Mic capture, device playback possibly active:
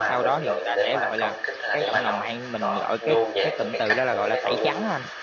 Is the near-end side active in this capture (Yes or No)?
Yes